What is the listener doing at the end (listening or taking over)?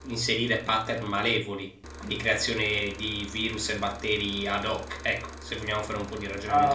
taking over